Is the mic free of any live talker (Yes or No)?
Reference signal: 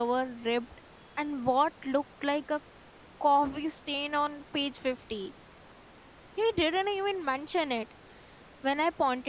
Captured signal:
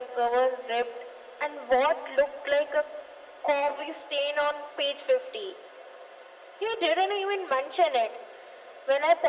Yes